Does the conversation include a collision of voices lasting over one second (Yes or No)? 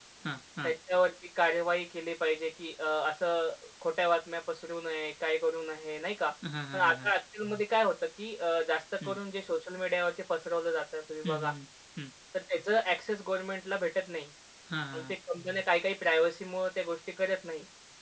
No